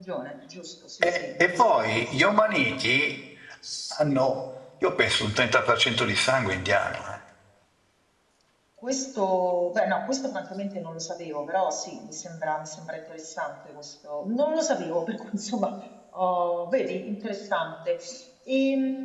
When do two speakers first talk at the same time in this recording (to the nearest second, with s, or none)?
1 s